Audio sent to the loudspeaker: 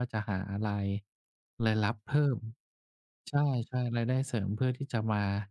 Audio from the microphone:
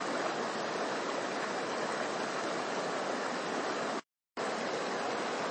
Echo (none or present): none